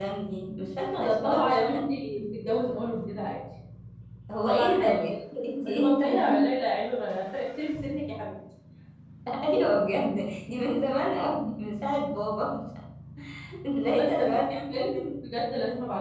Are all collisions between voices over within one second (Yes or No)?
No